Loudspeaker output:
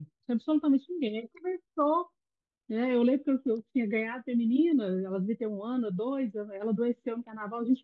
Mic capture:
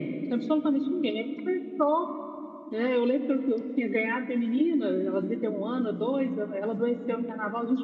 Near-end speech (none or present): none